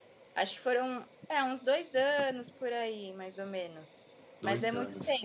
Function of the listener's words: listening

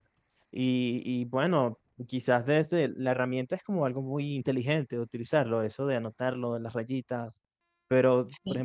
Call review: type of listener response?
listening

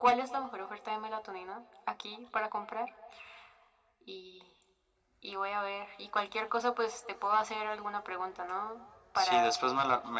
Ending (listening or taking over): taking over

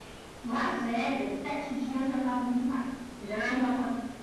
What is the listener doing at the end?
listening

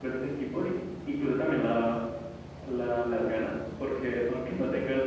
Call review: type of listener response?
listening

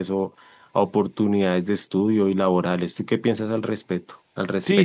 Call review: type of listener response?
taking over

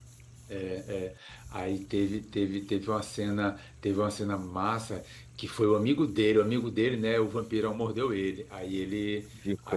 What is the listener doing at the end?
listening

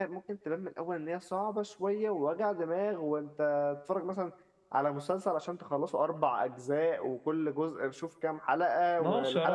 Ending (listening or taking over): taking over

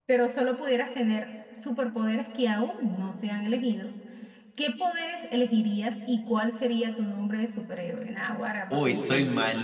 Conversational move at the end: taking over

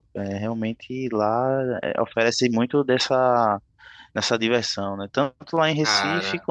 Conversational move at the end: listening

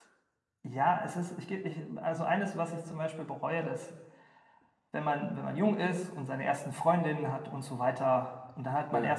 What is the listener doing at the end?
listening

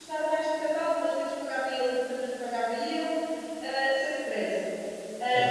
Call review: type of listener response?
listening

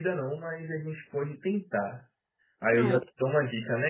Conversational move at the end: listening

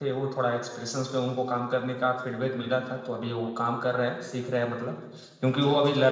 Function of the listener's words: listening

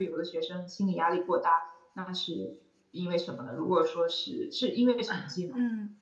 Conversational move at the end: taking over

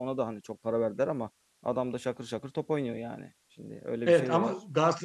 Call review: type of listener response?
taking over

